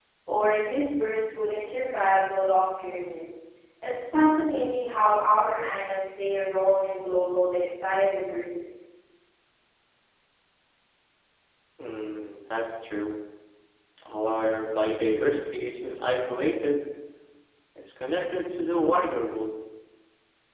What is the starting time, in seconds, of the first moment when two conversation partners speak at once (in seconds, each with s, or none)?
none